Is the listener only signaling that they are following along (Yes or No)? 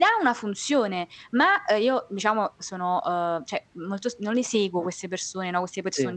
Yes